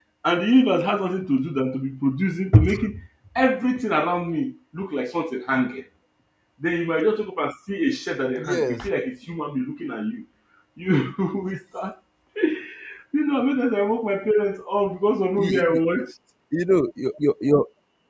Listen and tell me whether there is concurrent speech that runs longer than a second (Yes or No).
No